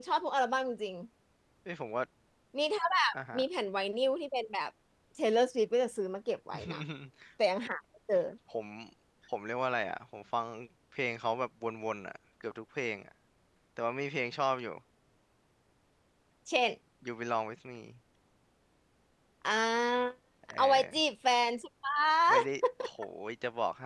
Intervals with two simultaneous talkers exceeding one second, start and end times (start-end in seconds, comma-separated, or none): none